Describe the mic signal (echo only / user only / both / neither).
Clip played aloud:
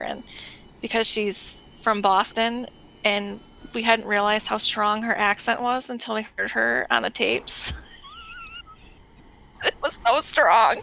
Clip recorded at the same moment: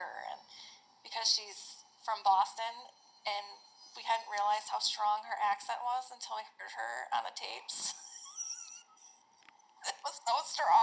echo only